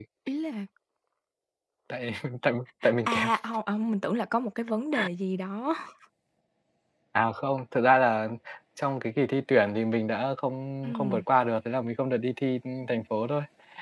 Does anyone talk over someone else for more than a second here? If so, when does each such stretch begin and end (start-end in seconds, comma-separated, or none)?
none